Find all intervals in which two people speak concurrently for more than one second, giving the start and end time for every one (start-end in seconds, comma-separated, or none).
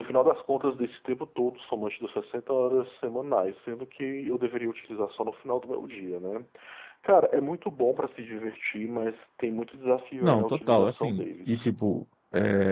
10.2-11.7